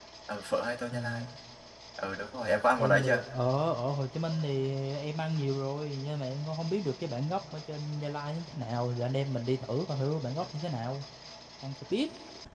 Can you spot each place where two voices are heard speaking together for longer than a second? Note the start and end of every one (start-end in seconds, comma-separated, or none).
none